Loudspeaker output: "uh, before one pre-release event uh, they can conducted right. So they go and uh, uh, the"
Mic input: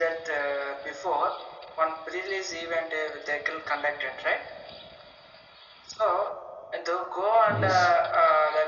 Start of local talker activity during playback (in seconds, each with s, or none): 7.5 s